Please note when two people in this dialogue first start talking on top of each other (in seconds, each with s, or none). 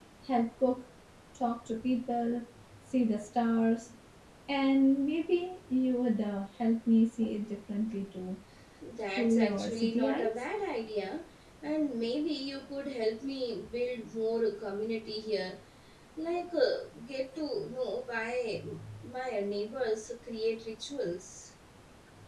9.2 s